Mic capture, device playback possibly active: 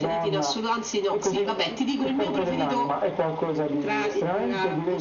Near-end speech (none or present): none